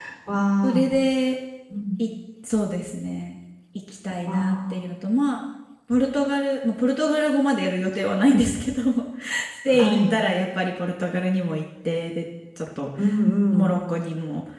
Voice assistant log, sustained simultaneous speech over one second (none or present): none